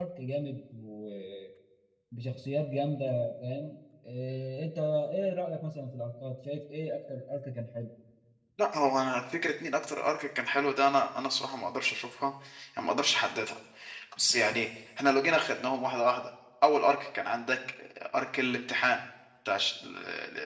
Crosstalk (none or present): none